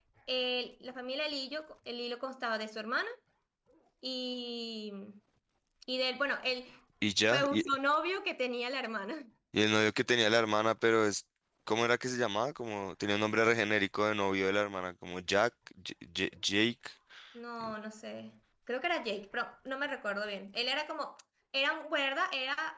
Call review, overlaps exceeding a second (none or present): none